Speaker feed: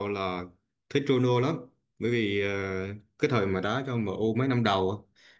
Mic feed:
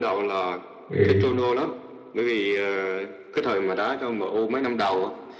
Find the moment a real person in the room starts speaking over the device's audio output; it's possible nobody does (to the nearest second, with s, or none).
1 s